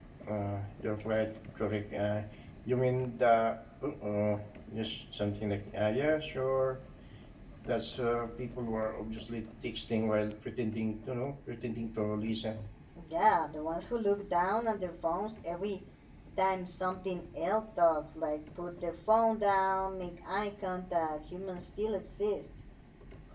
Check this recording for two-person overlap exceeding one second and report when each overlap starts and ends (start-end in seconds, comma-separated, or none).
none